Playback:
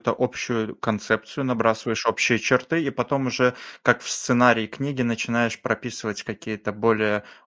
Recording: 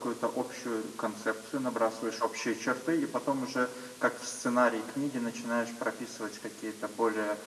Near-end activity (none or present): none